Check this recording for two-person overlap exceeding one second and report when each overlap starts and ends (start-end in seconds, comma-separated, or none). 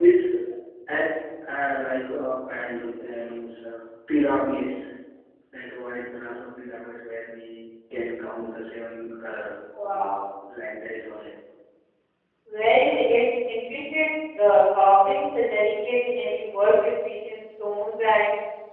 none